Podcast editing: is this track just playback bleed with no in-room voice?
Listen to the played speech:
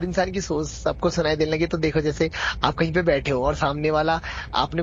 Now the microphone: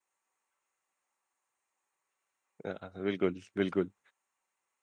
No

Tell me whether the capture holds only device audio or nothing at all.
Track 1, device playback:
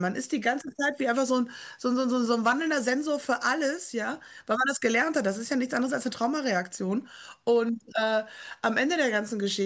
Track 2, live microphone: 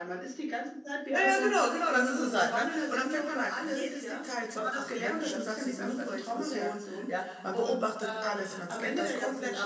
No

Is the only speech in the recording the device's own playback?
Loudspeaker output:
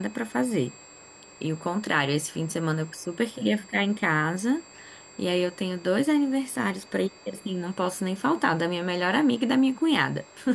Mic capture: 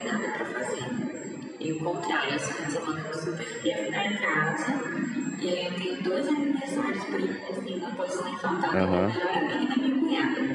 No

